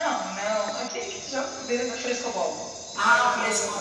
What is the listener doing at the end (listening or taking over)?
taking over